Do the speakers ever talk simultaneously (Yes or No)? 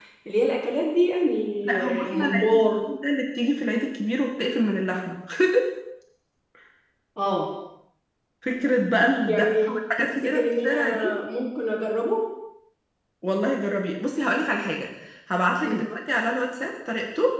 Yes